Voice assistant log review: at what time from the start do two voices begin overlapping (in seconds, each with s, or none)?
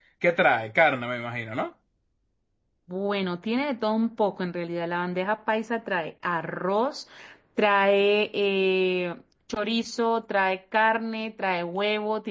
none